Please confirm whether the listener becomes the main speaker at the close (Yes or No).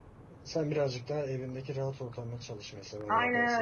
Yes